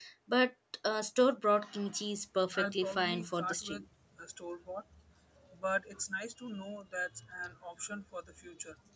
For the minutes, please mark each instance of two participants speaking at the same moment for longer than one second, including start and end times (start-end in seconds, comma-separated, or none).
2.6-3.8